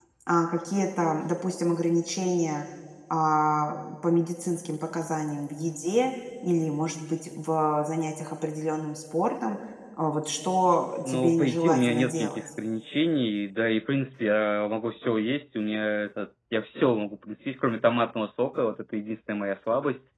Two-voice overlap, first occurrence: 11.1 s

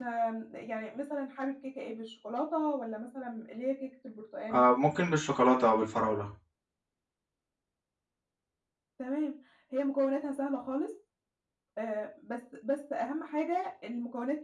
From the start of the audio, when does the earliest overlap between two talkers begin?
none

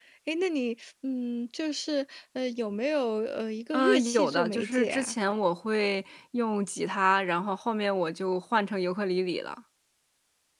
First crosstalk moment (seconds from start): 3.7 s

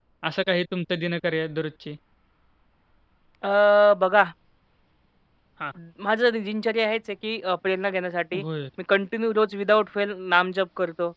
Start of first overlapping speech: none

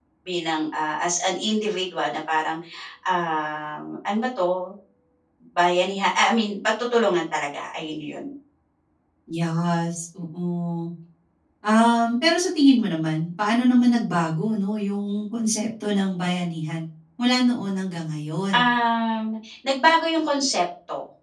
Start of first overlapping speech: none

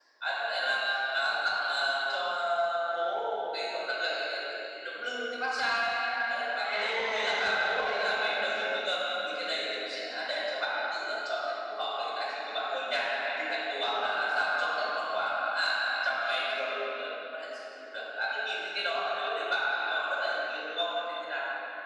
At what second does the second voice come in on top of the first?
6.6 s

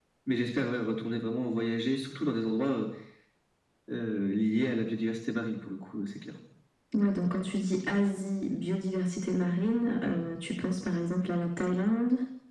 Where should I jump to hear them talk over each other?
none

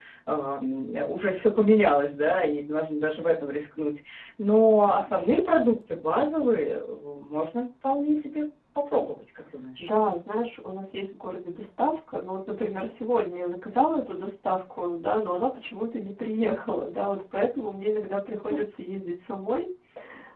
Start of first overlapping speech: none

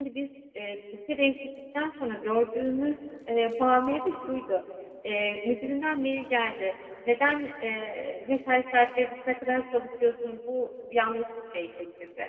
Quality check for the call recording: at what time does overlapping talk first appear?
none

